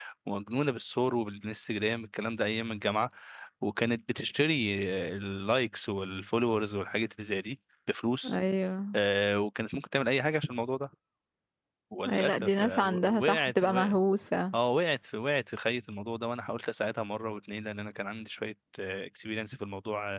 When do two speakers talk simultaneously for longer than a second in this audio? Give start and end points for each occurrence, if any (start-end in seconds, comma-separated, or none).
12.1-14.0